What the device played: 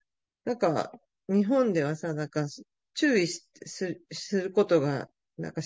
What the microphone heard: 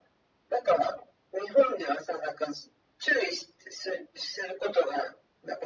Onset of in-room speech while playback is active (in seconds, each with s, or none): none